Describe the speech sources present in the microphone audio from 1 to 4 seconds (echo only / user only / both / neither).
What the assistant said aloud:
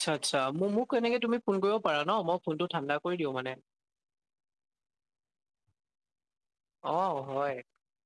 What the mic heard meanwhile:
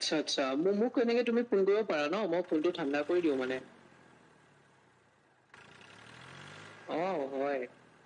echo only